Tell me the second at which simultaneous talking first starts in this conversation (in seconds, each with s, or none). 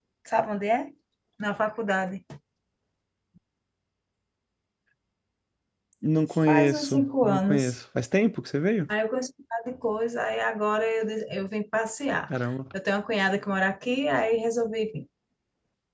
6.5 s